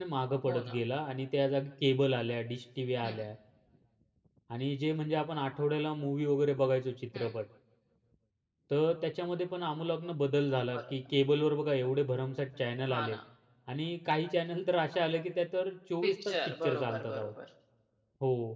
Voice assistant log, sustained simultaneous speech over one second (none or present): present